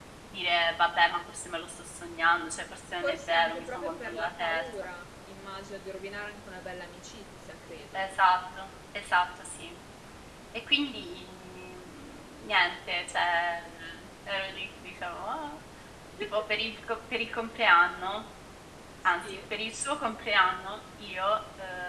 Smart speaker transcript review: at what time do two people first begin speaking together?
3 s

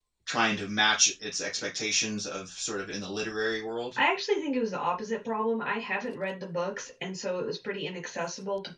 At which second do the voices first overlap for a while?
none

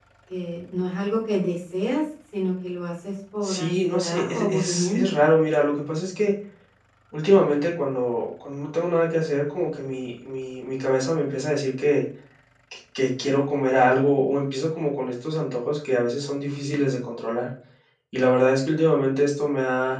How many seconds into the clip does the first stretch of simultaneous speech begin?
3 s

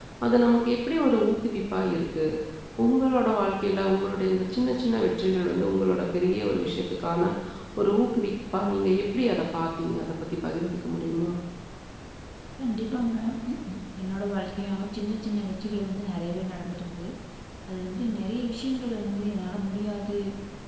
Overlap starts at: none

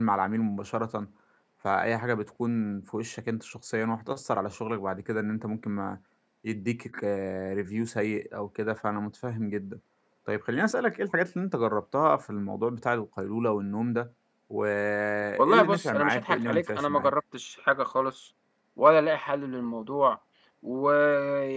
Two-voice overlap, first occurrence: 15 s

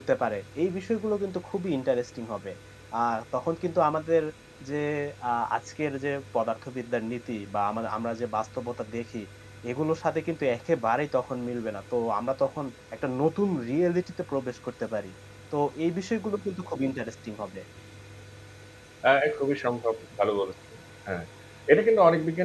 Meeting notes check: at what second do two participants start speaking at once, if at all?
none

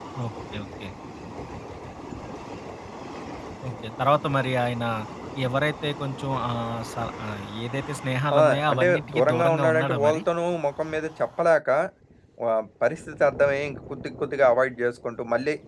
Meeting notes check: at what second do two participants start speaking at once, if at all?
8 s

